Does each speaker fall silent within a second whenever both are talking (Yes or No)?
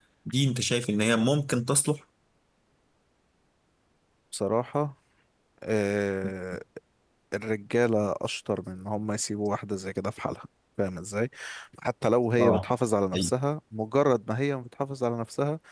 Yes